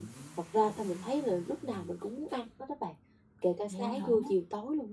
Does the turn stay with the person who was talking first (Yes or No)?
Yes